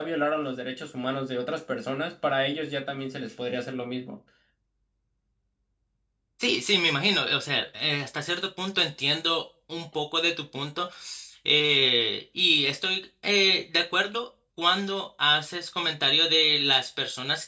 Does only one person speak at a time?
Yes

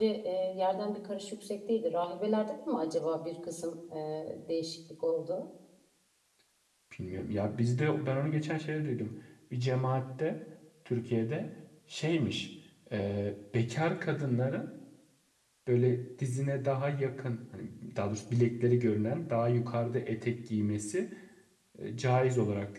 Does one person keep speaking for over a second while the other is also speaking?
No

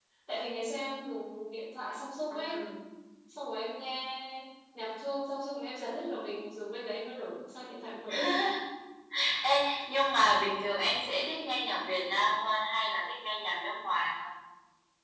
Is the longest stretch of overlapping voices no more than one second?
Yes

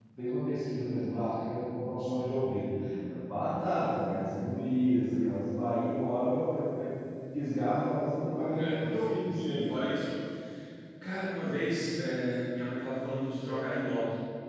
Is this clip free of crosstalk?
No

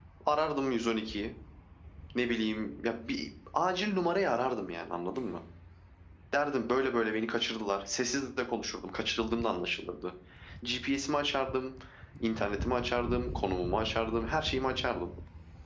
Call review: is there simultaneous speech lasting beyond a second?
No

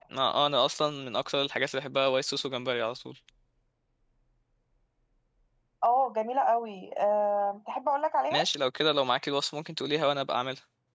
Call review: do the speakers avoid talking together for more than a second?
Yes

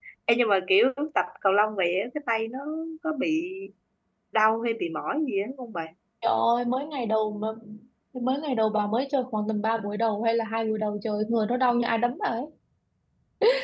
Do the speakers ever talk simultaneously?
No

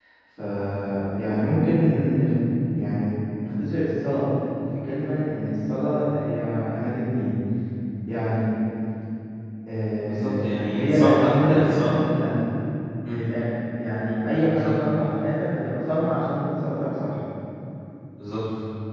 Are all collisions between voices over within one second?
No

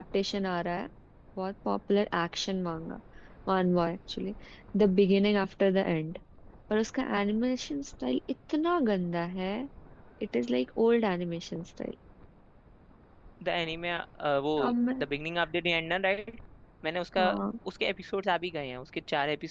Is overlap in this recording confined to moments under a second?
Yes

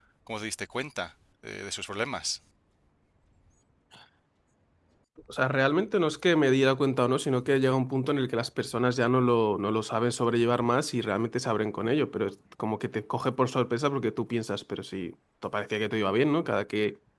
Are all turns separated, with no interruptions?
Yes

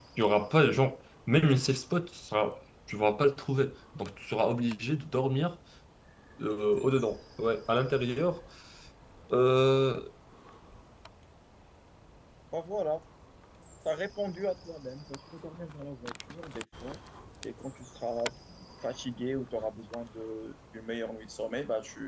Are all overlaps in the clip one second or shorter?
Yes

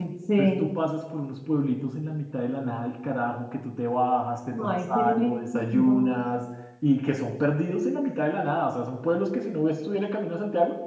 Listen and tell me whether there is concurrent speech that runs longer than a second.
Yes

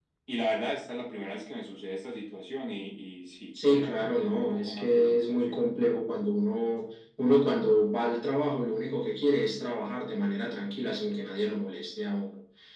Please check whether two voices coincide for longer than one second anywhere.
Yes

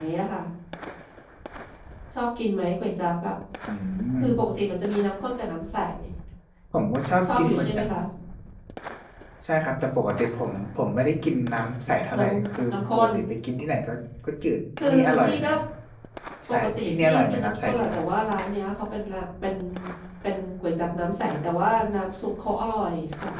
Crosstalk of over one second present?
Yes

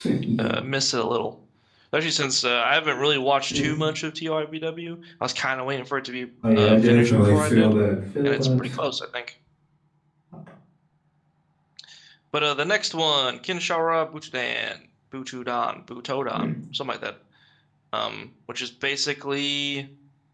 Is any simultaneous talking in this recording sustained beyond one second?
Yes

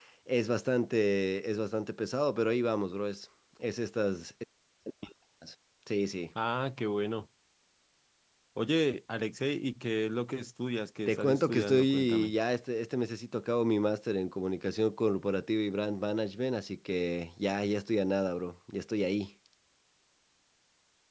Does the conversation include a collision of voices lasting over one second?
Yes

